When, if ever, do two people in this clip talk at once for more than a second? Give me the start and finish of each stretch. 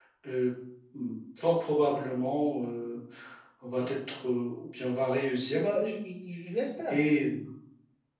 none

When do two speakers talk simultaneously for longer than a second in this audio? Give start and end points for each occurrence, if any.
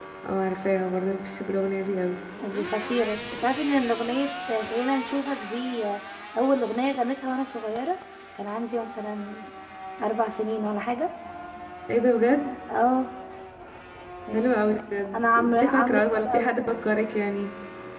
15.1-16.5

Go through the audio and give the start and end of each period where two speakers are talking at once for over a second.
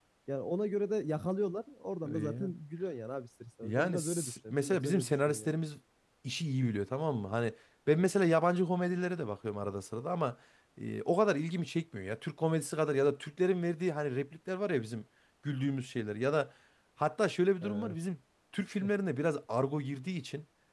3.6-5.5

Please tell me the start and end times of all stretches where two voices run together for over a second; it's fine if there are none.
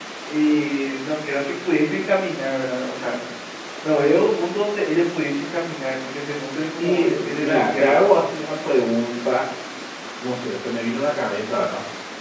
6.8-8.0

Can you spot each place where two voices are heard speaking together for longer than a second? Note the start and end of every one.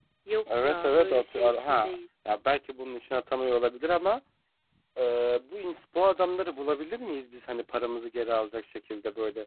0.6-1.9

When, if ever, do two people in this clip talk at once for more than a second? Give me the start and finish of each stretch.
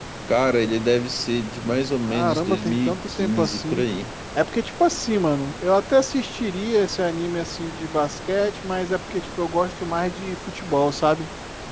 2.0-3.8

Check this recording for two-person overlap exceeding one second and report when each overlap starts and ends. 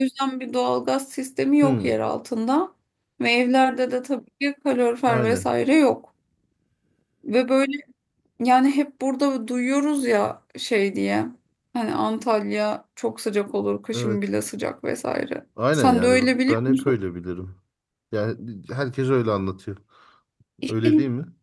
15.7-16.9

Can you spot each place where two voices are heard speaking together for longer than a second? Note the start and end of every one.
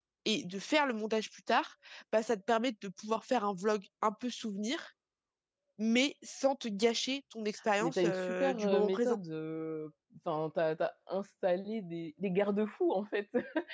7.8-9.2

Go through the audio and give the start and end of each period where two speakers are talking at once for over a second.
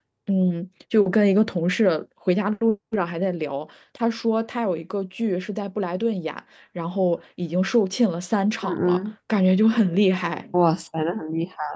none

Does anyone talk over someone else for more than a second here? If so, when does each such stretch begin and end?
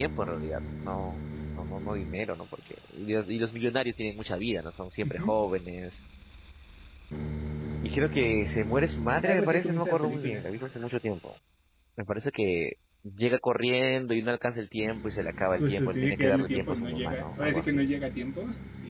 9.2-10.4, 15.6-17.9

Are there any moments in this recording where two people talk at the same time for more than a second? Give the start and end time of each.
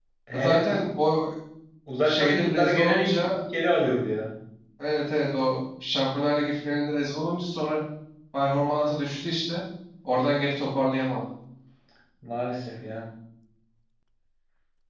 2.0-3.4

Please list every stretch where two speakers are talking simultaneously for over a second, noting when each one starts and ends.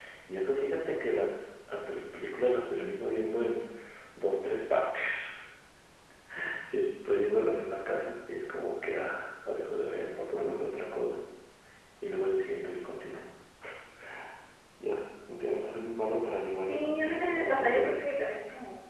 16.7-18.1

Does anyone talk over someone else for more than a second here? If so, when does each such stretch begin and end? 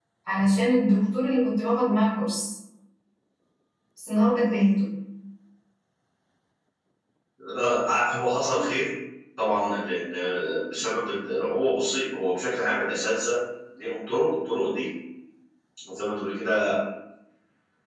none

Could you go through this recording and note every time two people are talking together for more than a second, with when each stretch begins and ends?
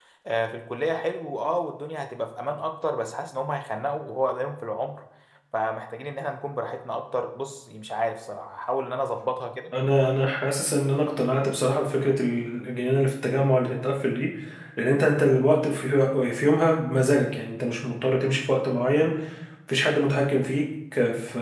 none

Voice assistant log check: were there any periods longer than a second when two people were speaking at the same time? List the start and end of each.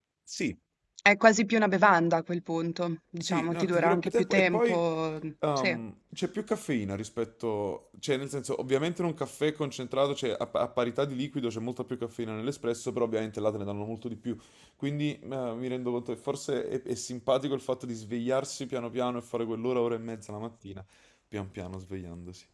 3.2-4.8

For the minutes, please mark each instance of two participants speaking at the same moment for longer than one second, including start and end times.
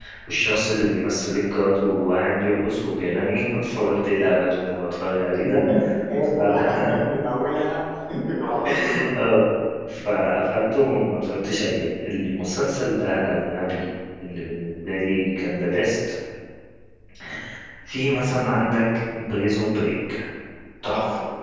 none

